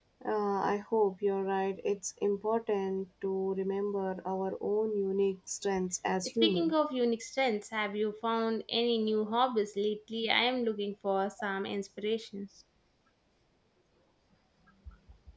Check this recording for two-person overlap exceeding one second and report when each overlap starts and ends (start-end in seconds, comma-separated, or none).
none